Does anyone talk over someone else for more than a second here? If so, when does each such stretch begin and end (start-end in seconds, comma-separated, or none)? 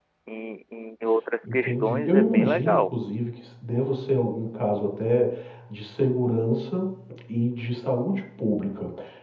1.5-2.9